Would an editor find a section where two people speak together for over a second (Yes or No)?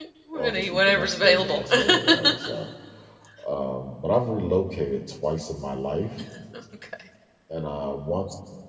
Yes